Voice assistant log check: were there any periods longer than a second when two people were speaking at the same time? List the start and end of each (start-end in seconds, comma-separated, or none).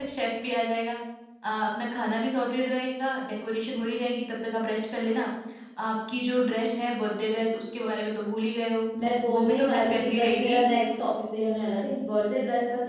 9.4-10.6